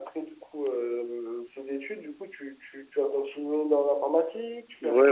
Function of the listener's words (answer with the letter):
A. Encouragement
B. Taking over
B